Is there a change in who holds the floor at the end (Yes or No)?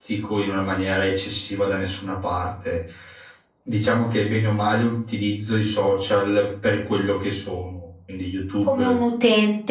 Yes